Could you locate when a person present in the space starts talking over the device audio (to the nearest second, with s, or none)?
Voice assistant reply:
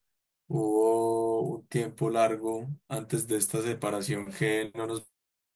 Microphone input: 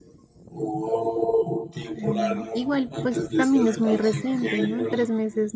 2 s